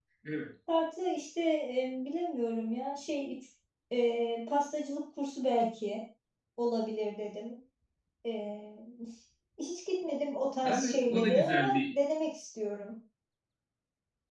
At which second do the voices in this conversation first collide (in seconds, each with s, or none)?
10.6 s